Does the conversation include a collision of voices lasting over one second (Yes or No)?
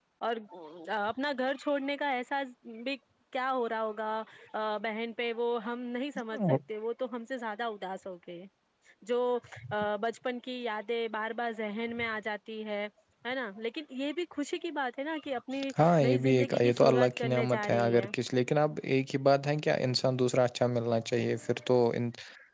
Yes